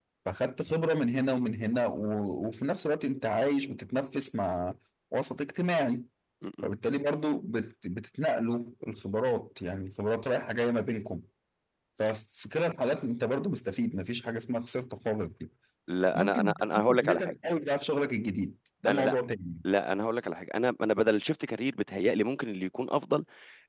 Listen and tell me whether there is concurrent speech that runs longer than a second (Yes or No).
Yes